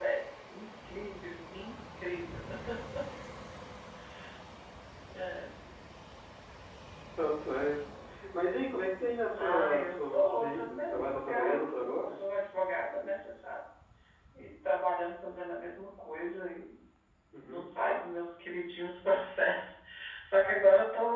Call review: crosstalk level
present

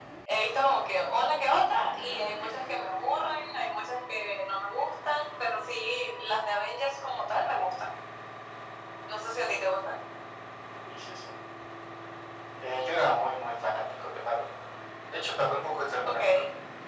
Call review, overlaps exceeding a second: none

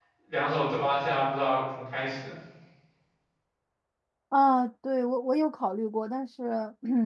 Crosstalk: none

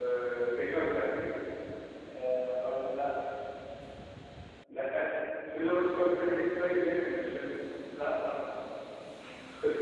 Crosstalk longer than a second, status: none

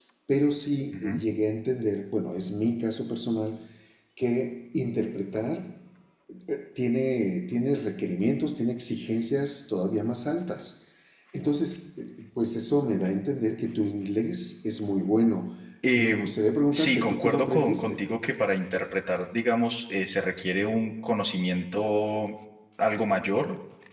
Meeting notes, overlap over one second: present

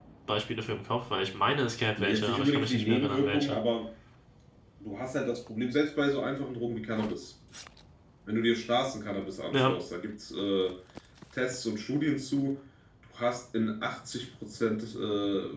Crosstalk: present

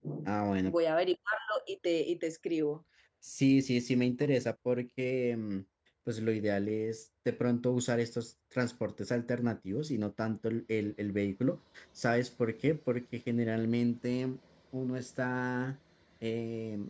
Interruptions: none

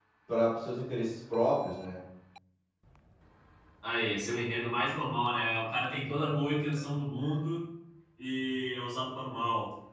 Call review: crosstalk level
none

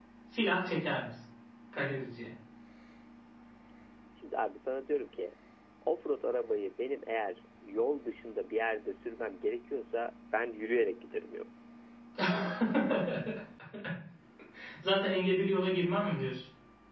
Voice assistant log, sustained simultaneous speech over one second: none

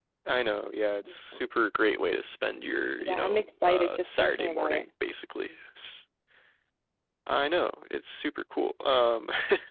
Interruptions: present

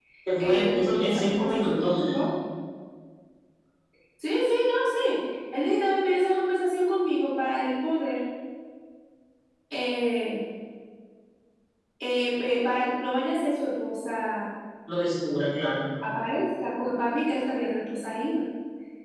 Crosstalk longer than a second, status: present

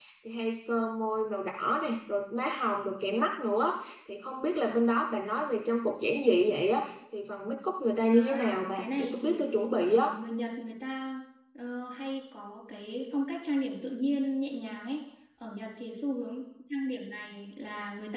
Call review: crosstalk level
present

